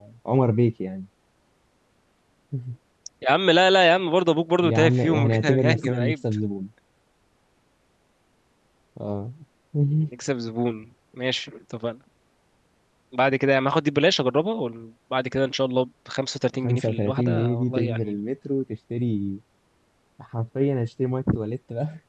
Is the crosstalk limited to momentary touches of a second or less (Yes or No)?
No